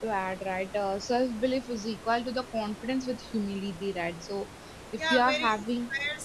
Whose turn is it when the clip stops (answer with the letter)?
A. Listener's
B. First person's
A